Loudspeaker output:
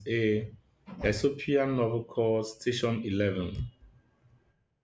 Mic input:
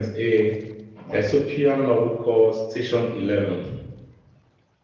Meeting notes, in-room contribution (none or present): none